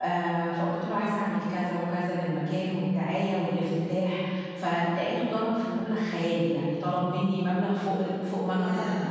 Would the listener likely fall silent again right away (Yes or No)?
No